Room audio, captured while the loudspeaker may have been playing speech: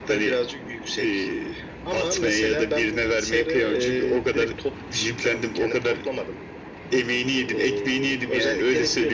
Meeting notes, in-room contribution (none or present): none